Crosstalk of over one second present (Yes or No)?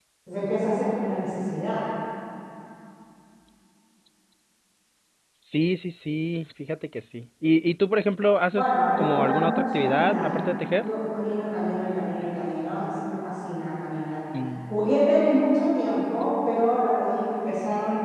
Yes